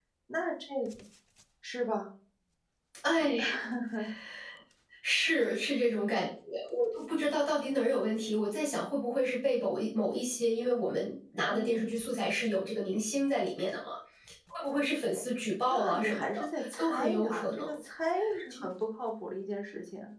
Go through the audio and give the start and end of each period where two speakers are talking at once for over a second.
15.7-17.8

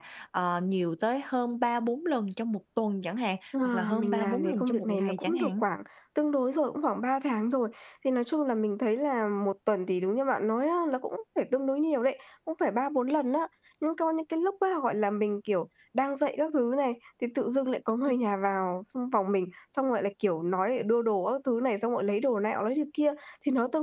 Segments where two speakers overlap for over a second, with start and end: 3.6-5.6

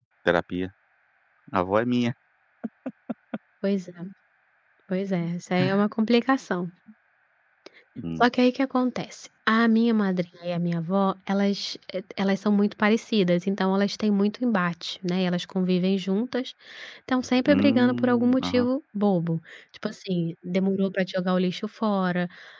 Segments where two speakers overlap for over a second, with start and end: 17.5-18.7

